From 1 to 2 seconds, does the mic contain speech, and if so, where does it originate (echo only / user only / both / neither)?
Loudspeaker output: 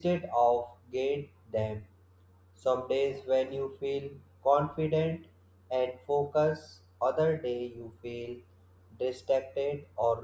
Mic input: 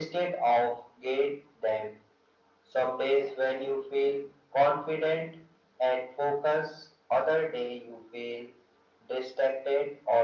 echo only